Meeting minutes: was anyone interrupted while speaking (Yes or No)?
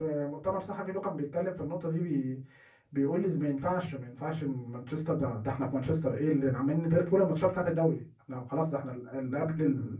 No